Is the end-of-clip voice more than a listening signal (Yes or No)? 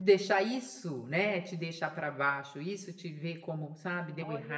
Yes